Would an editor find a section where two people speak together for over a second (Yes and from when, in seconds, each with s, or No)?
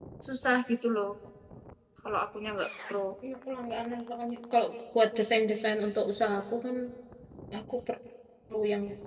No